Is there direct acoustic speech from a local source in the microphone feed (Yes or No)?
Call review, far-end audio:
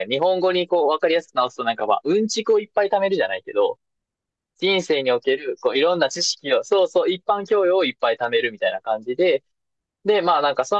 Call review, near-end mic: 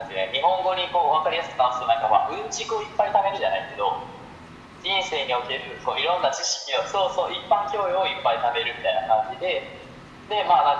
No